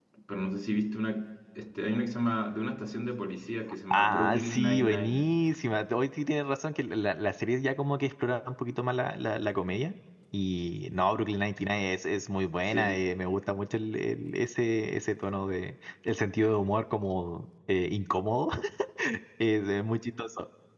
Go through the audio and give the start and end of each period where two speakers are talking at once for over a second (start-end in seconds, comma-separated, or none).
3.9-5.3